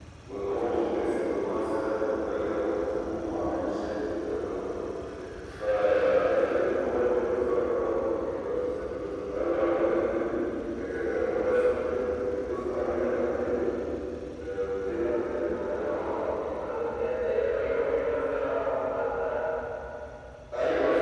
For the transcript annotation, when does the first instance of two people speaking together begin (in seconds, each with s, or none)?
14.9 s